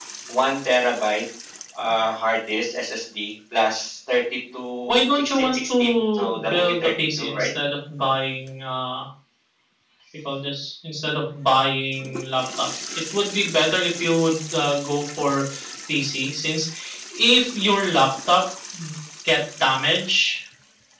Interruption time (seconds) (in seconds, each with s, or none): 4.9 s